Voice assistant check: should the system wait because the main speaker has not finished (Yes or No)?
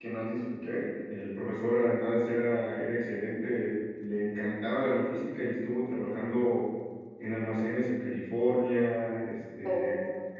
Yes